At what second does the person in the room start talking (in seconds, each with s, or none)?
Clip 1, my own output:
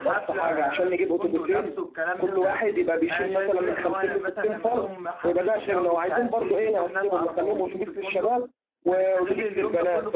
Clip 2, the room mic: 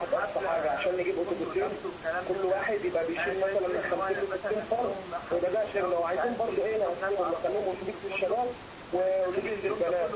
none